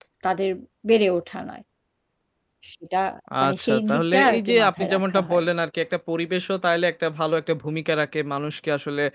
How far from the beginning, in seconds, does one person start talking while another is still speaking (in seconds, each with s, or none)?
3.5 s